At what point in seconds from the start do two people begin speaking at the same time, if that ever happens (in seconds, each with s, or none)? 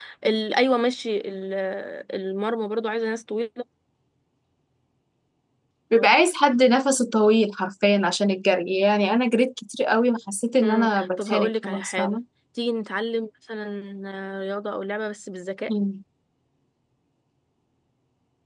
10.6 s